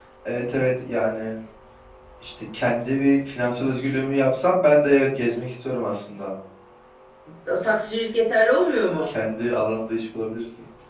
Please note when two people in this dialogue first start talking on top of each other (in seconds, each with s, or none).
none